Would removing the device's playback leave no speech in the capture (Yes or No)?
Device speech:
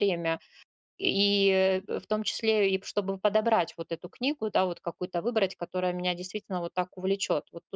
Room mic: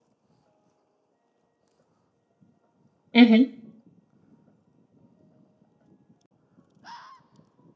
No